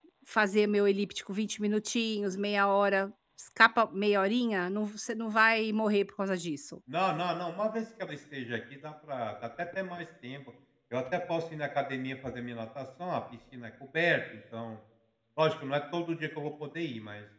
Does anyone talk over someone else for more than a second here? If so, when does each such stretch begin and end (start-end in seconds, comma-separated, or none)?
none